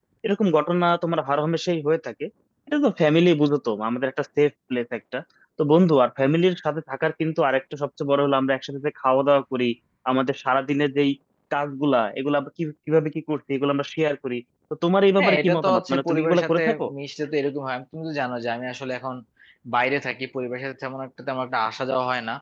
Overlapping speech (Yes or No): Yes